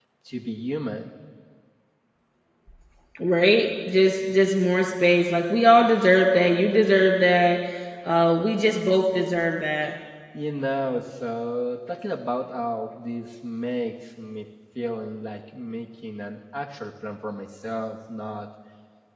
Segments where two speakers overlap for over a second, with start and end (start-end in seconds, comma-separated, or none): none